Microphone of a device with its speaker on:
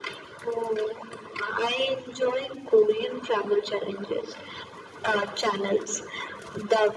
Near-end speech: none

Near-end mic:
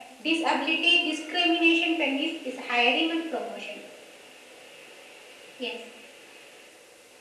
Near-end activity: none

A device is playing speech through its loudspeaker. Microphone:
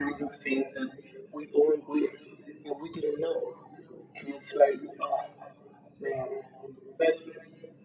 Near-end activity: none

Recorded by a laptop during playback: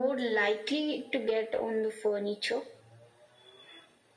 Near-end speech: none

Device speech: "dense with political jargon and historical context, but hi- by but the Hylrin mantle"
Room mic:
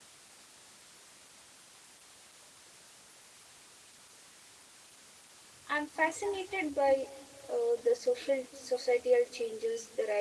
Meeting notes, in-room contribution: present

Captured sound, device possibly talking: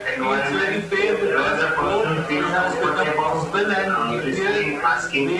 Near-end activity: present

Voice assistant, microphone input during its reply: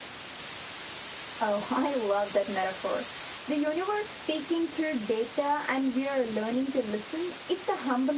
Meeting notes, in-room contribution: none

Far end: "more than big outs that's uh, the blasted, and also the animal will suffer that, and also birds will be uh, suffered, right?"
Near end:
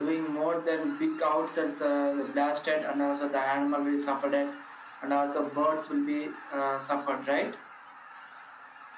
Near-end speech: none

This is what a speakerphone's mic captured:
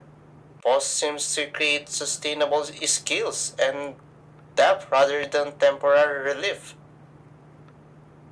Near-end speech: none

